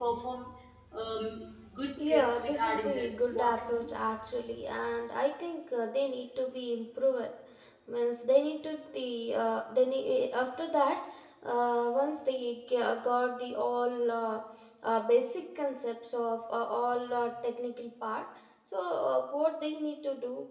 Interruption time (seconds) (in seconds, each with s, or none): 2.0 s